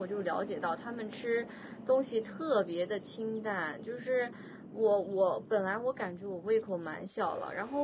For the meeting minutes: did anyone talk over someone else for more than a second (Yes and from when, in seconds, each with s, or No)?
No